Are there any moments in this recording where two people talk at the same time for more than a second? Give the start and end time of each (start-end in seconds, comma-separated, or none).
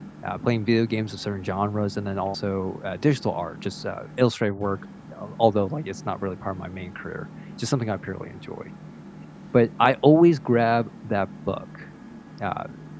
none